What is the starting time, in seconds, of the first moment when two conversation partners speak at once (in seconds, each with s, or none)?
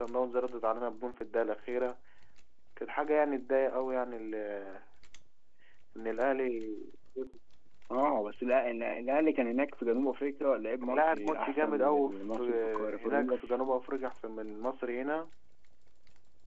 10.8 s